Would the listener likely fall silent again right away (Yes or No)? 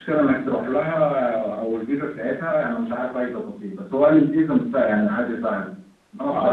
No